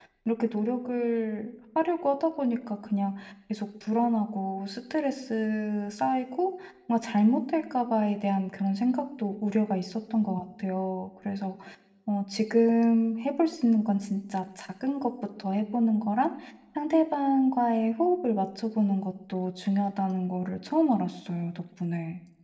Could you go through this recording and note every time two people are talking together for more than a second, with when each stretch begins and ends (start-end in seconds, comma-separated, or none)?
none